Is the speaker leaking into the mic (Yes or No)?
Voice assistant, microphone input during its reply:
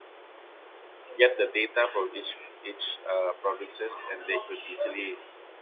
No